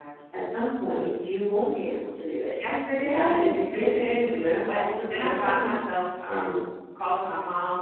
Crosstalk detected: Yes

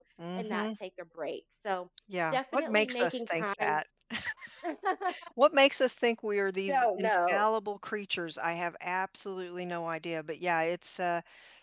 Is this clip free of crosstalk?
No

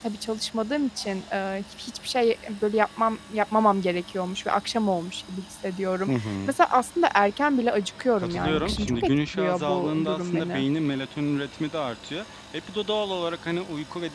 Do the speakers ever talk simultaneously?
Yes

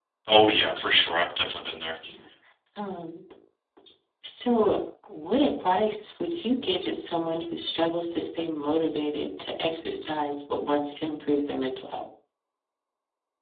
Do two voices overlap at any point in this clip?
No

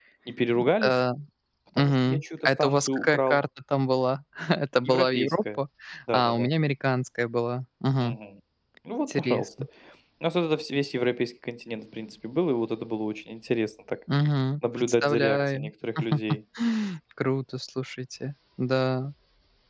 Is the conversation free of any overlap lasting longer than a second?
No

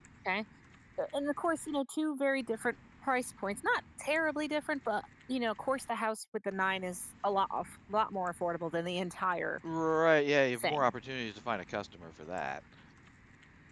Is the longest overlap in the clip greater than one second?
No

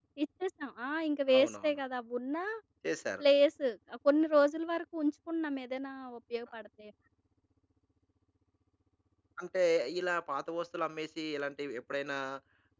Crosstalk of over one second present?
No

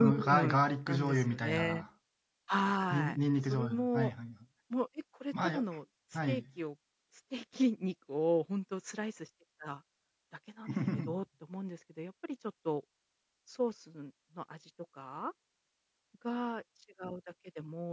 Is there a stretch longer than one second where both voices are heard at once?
Yes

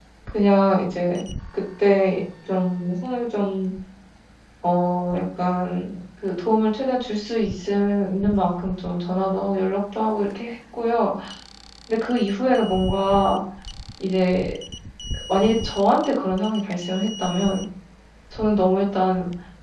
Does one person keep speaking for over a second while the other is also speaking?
No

